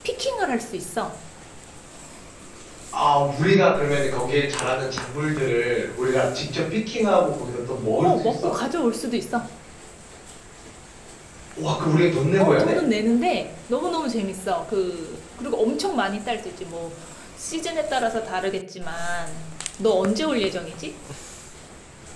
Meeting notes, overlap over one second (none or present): none